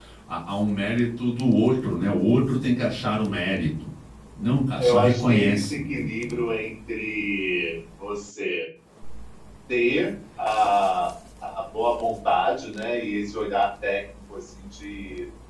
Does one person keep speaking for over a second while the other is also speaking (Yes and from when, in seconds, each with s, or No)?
Yes, from 4.8 s